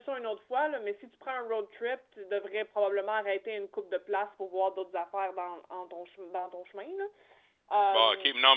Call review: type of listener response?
taking over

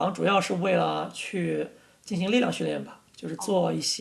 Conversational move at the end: listening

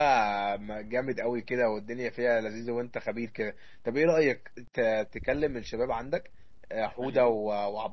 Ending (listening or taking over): listening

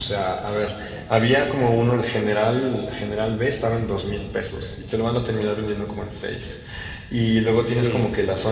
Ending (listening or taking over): listening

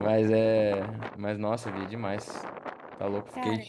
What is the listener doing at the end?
listening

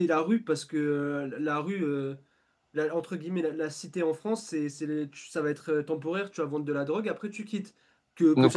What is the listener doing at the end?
taking over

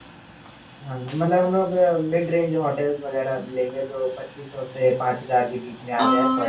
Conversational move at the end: taking over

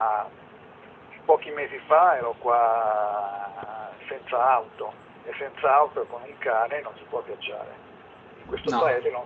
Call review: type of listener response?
listening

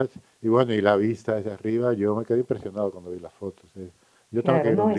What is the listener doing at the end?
taking over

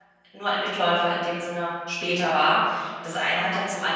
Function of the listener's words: listening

